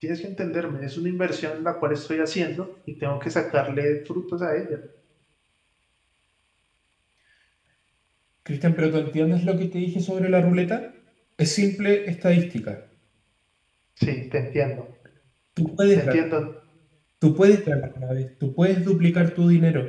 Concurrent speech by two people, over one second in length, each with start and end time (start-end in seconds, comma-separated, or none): none